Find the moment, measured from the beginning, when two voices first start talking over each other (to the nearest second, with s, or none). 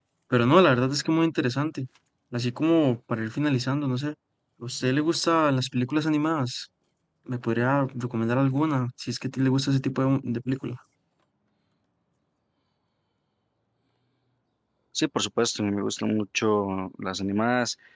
none